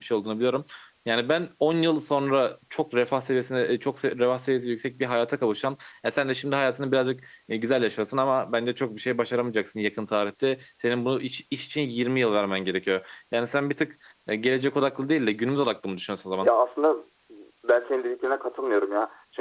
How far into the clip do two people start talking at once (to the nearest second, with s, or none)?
none